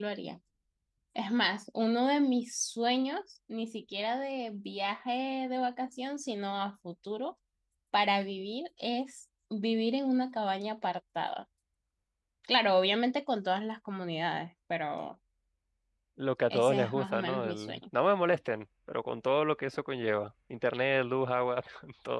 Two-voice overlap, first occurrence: 16.5 s

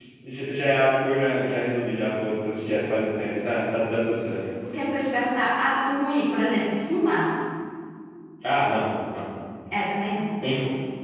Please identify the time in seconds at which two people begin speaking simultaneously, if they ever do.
none

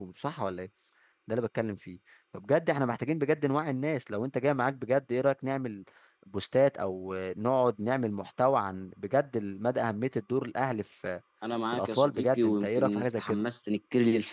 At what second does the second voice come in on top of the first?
11.7 s

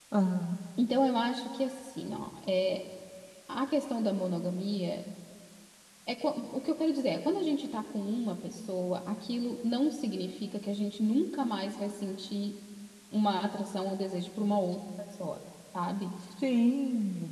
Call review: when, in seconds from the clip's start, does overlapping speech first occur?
none

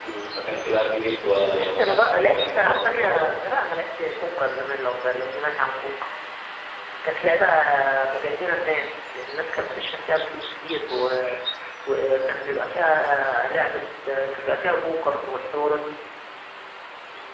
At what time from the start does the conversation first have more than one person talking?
1.2 s

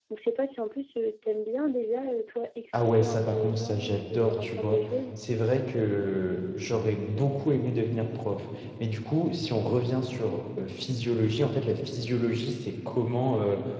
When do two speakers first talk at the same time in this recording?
2.7 s

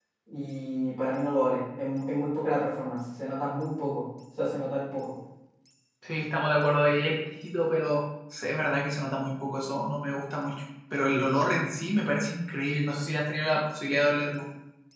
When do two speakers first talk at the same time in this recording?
none

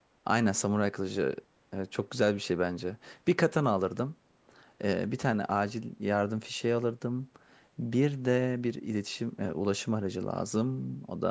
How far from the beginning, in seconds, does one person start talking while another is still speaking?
none

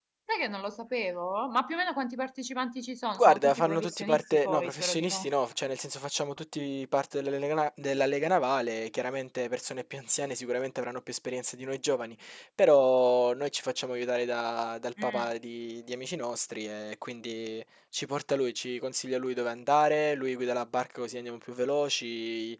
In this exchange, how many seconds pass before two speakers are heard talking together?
3.2 s

